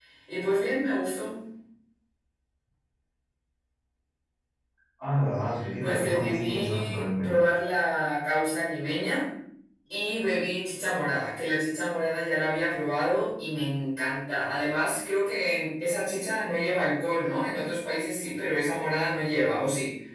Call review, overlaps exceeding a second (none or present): present